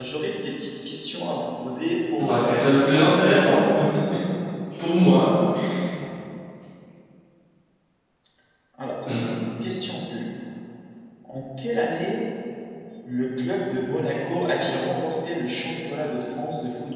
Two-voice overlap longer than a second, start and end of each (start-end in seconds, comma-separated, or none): 2.2-3.6